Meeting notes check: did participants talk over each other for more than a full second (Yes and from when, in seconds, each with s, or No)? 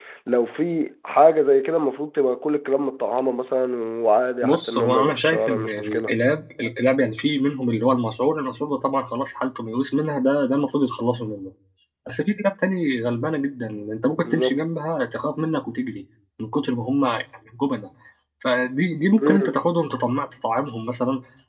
Yes, from 4.4 s